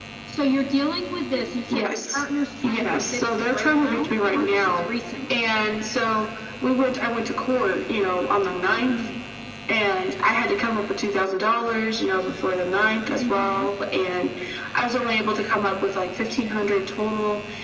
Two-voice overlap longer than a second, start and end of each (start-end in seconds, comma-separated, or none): 2.6-4.9